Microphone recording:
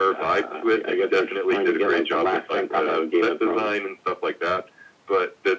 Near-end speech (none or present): none